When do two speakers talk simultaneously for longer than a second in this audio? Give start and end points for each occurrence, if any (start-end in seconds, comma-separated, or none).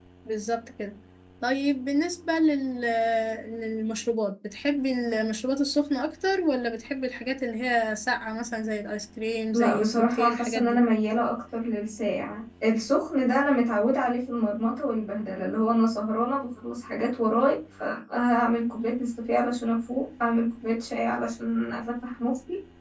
9.5-10.8